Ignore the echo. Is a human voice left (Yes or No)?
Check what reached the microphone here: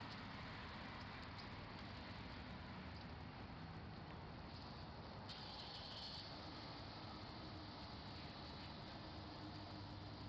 No